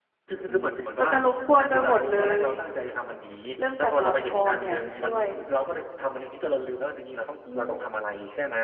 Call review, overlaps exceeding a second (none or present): present